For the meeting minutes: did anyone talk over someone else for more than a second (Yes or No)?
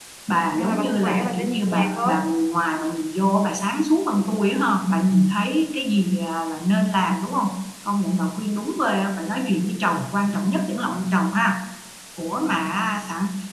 Yes